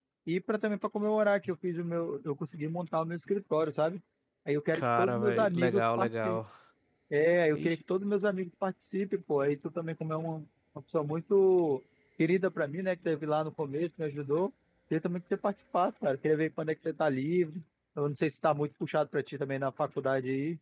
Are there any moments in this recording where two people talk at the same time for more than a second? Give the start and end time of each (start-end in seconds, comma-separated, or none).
4.7-6.4